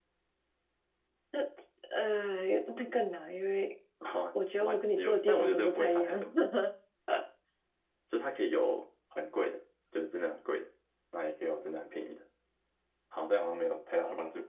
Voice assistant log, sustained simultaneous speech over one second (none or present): present